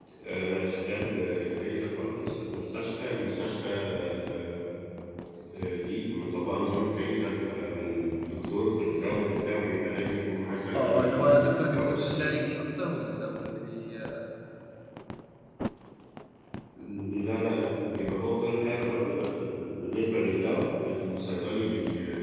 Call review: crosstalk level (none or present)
present